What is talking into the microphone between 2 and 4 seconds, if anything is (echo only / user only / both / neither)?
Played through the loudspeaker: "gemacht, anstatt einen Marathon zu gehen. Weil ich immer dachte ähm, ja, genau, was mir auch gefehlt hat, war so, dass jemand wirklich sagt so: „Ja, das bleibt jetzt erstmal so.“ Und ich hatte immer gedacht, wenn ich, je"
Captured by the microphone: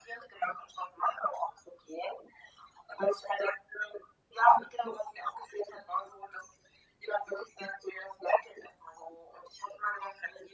echo only